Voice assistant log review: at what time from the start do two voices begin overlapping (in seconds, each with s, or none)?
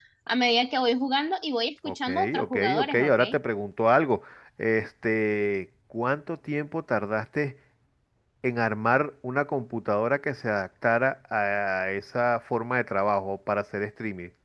1.9 s